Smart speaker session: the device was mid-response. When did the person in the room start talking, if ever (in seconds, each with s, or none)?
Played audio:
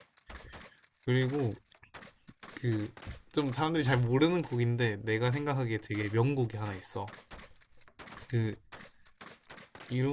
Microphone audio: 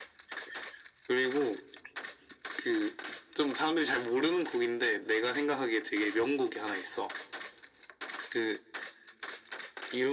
none